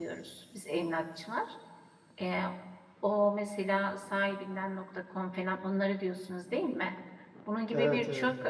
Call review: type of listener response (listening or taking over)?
listening